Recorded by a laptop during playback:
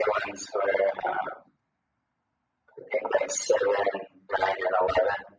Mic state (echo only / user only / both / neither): echo only